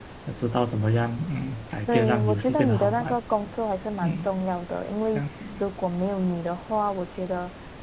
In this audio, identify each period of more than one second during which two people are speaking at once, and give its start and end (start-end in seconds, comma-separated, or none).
1.9-3.2